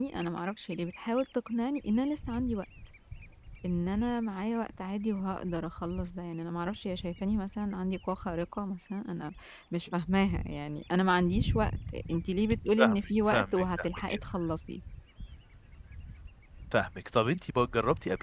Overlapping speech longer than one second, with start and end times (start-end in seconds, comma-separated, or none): 12.8-14.1